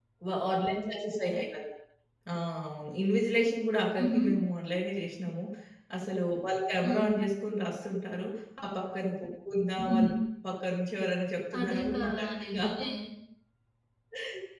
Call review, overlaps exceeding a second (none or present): present